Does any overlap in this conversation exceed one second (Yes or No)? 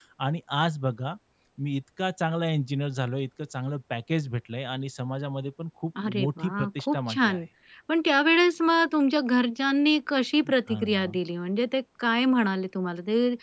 Yes